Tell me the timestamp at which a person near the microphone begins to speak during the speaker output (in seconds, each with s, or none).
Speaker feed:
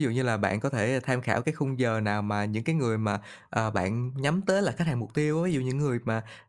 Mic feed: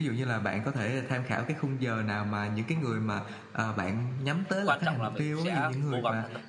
4.7 s